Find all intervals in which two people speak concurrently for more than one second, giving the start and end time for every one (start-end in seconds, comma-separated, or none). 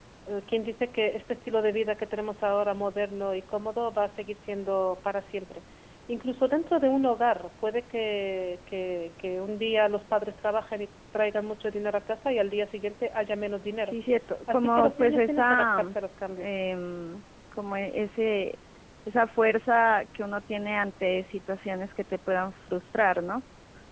14.5-15.8